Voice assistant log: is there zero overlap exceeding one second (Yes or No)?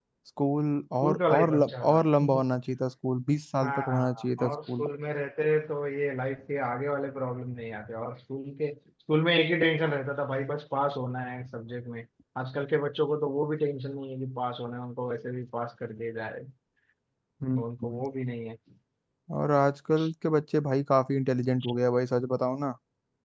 No